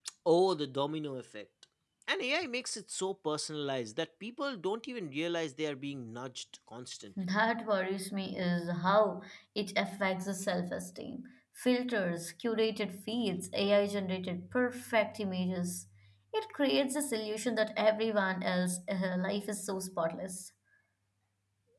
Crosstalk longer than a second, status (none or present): none